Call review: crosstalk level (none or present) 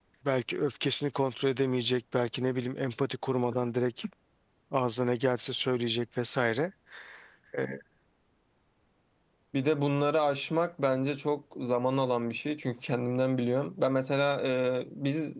none